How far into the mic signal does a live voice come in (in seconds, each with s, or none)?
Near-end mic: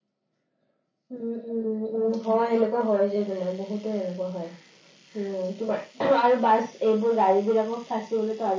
none